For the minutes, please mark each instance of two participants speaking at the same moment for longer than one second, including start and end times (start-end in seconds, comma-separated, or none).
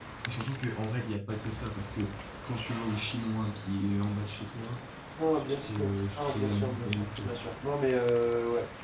5.3-7.3